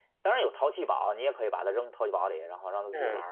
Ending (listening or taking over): taking over